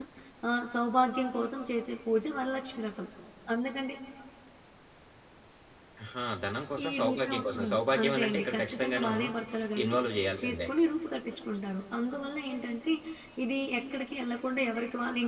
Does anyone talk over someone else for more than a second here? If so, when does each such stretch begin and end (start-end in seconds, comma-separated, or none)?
6.9-9.1